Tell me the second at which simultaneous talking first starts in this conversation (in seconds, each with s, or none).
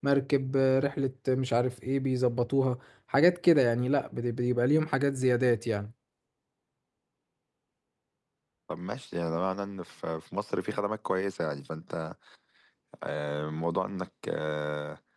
none